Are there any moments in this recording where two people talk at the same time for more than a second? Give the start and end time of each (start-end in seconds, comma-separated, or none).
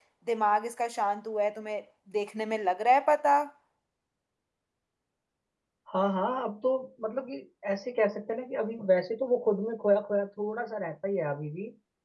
none